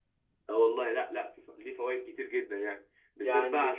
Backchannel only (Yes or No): Yes